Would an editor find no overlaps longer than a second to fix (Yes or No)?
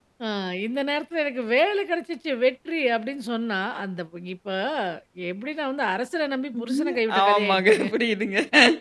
No